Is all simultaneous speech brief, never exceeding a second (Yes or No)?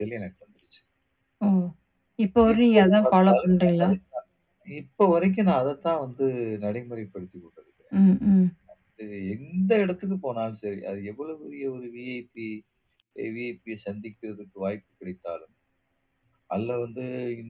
No